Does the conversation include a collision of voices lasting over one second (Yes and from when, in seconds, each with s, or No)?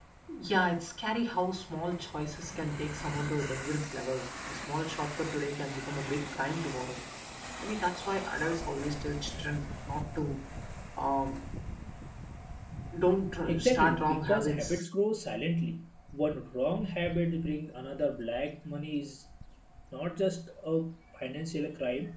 Yes, from 13.5 s